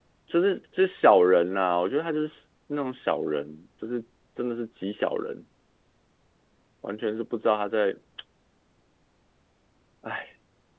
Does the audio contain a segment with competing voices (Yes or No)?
No